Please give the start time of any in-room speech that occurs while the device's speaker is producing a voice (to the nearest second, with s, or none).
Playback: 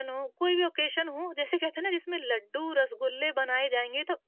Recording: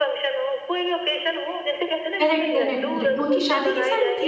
2 s